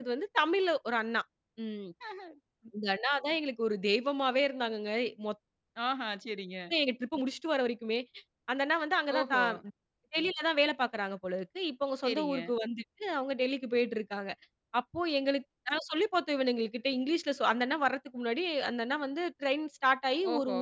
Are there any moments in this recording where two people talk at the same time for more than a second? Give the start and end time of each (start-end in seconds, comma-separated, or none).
none